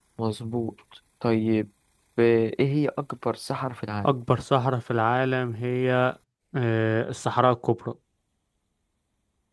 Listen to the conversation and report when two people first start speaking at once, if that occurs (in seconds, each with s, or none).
none